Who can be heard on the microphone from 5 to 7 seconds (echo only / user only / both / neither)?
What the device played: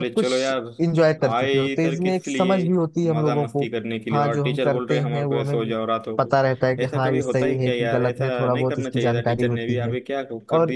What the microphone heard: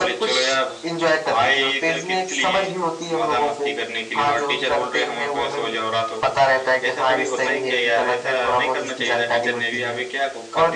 echo only